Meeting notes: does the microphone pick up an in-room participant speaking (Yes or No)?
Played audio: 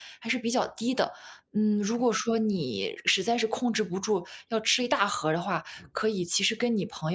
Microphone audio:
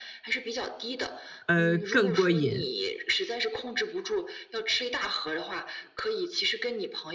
Yes